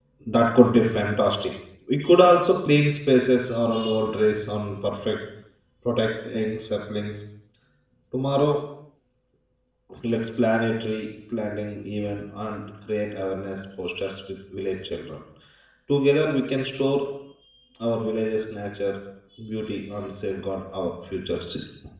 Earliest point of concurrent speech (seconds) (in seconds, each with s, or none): none